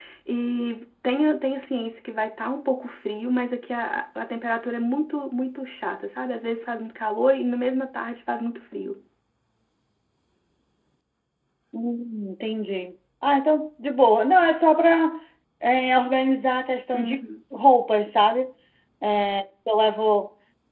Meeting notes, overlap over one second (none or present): none